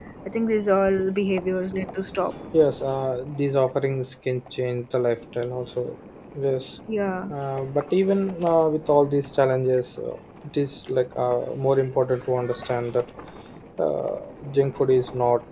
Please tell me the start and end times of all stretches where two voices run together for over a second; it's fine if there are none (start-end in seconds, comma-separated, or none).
none